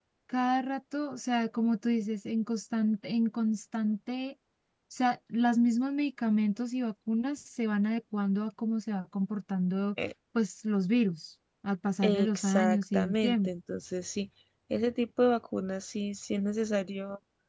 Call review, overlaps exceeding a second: present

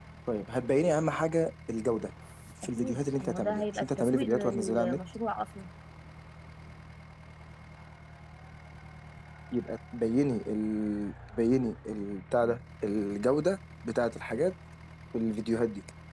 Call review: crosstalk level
present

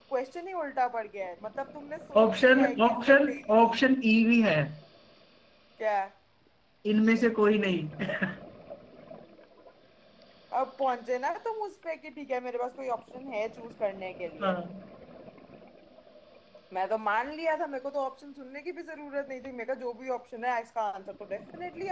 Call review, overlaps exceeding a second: present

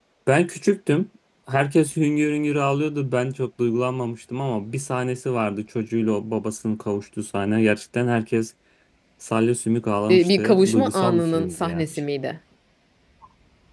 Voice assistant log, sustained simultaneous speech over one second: present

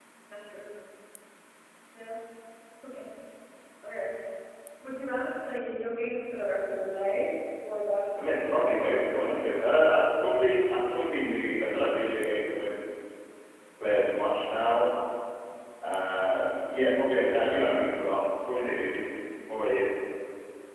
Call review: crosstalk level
present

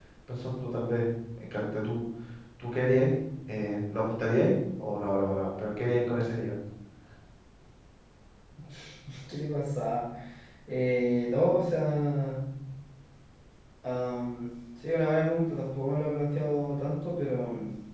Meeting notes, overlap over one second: none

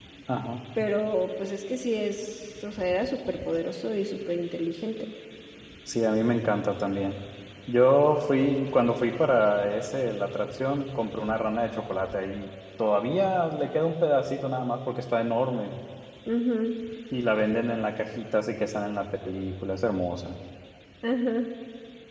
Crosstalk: none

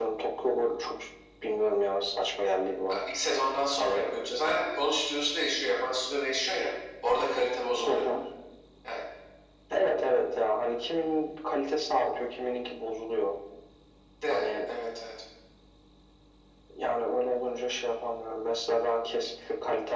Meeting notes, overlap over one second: none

